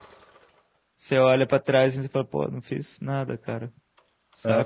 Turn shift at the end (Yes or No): Yes